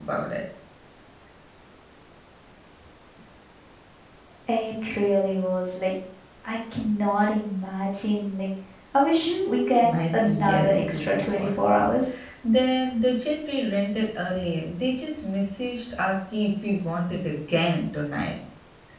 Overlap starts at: 9.5 s

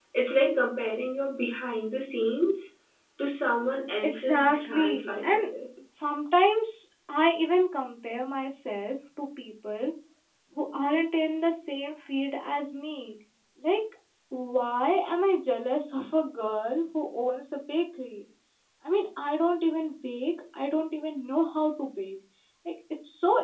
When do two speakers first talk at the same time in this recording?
4.0 s

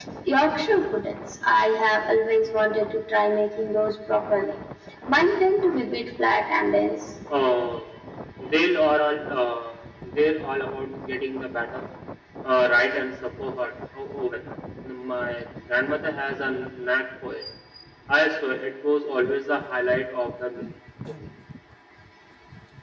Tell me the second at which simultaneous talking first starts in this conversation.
none

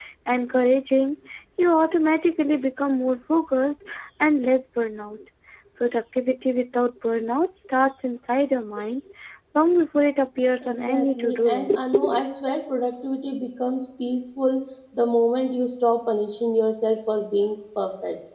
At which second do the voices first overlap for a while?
10.6 s

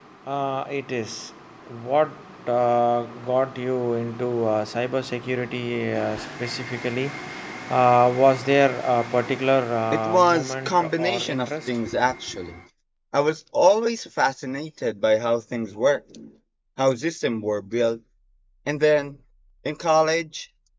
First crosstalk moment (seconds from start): 9.9 s

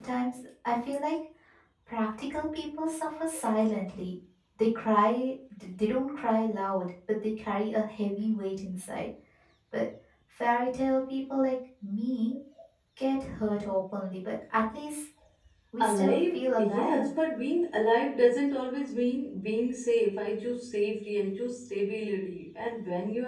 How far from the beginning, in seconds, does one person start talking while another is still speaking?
15.8 s

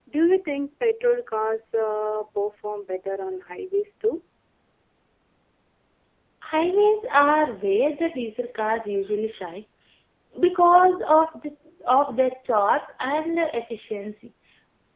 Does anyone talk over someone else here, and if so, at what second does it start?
none

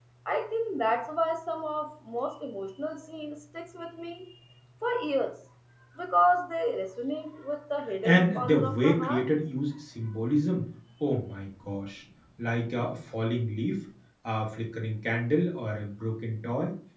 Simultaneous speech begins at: 8.0 s

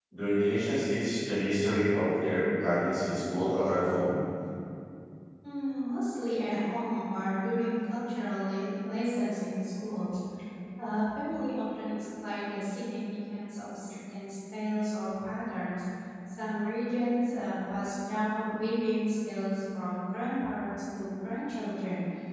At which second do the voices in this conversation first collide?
none

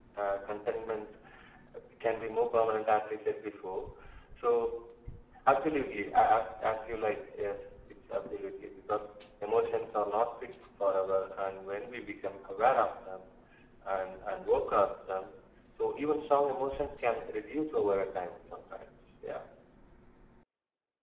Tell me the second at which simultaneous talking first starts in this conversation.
none

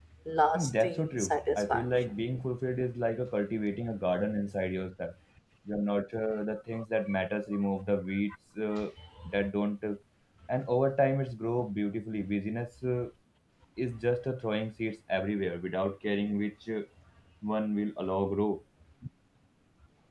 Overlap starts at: 0.5 s

